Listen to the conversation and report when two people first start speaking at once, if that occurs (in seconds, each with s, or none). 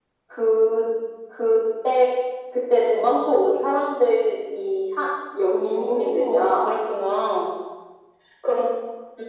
5.5 s